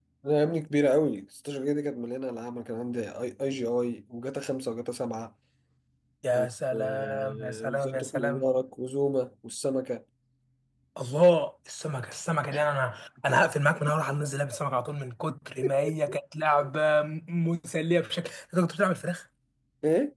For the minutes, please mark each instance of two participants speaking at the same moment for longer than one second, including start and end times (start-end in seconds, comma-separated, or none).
6.4-8.4